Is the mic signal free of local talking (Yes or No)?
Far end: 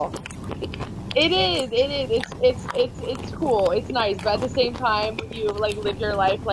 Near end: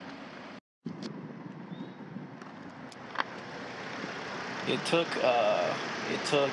No